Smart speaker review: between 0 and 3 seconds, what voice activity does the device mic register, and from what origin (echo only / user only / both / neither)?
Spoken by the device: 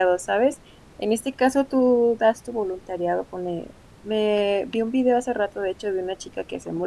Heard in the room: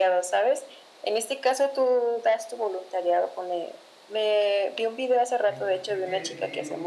echo only